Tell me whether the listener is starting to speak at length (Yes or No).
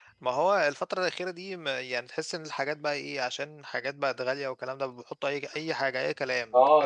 Yes